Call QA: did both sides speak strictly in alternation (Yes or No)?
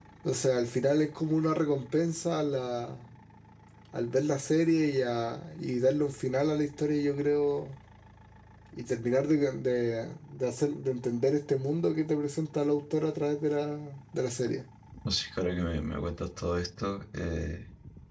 Yes